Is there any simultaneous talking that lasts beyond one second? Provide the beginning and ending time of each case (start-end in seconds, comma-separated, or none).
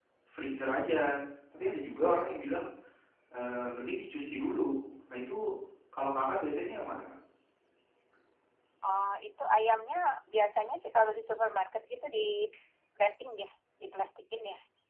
none